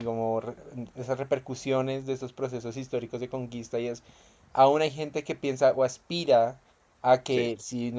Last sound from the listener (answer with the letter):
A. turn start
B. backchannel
B